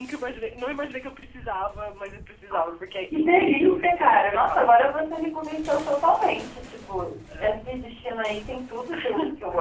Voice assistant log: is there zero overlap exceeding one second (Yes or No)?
No